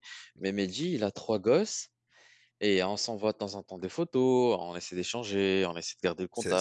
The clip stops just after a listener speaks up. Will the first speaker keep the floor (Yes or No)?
No